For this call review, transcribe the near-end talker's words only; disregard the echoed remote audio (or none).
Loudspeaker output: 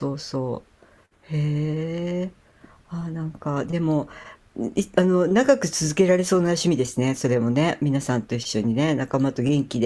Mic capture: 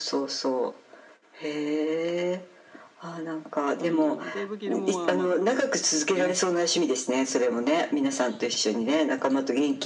あの、デイブ・ギルモアはまだ元気ですけどね。